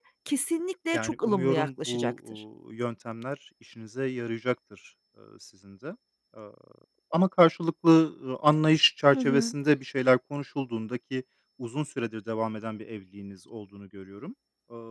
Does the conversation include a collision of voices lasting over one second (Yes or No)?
Yes